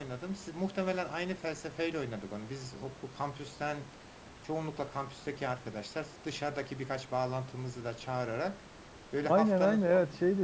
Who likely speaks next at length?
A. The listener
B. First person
A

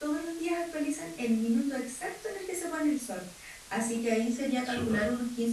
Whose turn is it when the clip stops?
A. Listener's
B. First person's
B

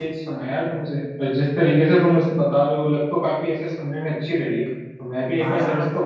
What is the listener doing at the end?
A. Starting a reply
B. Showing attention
A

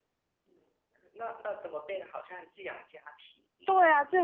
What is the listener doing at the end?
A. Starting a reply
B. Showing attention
A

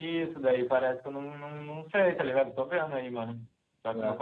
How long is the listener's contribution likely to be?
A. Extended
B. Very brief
B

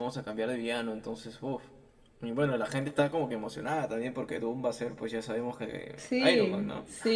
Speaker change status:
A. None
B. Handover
B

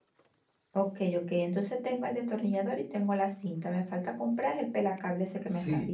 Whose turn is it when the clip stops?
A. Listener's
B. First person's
A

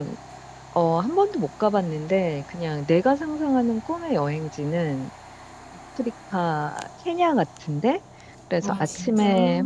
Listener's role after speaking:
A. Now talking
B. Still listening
B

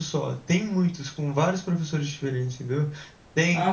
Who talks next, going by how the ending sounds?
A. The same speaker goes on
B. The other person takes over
A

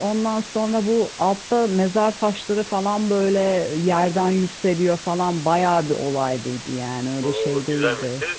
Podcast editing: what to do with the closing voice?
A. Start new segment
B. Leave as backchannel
A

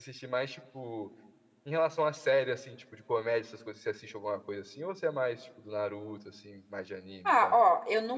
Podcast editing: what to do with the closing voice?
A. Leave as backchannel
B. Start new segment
B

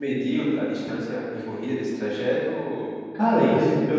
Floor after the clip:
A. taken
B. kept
A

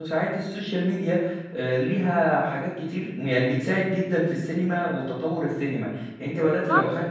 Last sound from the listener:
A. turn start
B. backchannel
B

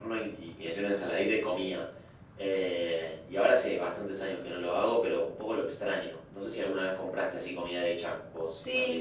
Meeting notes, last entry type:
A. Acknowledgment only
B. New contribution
B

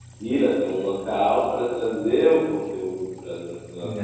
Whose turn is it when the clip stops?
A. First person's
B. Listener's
B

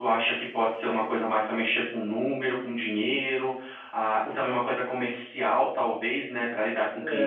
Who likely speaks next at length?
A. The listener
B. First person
A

